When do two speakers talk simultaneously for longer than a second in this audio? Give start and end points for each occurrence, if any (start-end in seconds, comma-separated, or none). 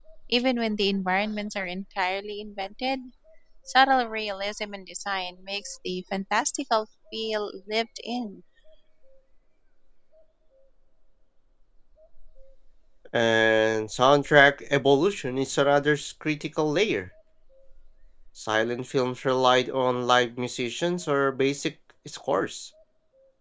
none